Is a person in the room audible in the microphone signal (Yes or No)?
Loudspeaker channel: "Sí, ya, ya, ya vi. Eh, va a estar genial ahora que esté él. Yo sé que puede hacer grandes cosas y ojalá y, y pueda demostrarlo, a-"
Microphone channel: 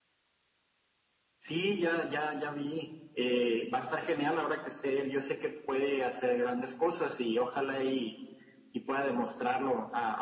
No